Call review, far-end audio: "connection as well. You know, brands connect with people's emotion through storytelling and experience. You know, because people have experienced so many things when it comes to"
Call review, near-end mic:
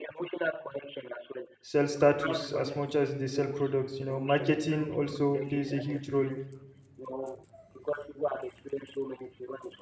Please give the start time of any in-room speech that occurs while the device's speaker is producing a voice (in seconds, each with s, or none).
1.6 s